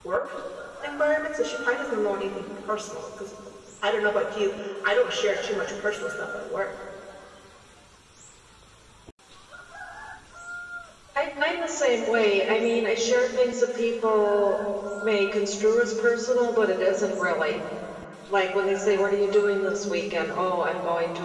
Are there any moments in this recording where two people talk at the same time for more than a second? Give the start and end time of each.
none

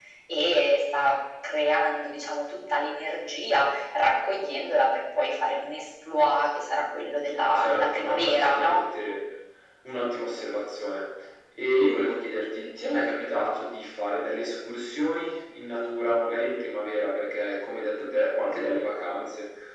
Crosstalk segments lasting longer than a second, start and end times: 7.5-8.8

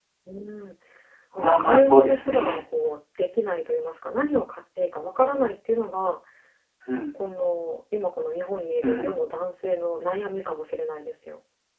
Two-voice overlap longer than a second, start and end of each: 1.4-2.6

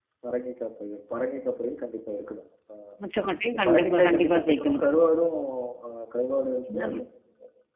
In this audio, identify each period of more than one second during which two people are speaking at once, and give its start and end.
3.5-4.8

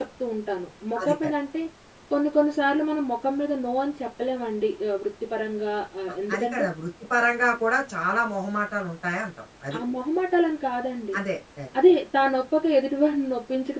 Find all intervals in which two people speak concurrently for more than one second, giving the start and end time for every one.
none

